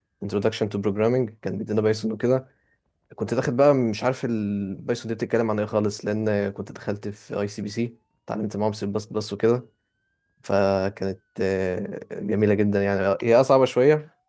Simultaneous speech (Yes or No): No